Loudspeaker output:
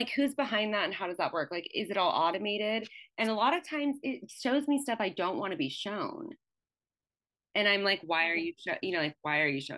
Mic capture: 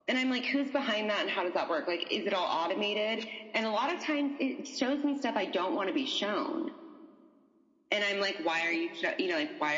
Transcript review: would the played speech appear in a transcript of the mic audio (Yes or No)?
Yes